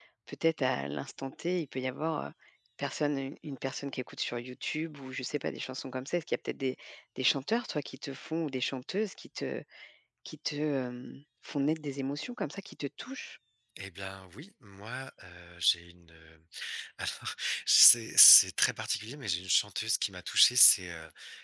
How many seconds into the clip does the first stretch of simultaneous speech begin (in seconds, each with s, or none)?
none